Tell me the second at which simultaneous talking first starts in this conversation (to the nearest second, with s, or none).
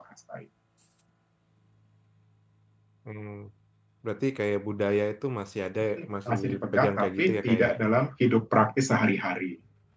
6 s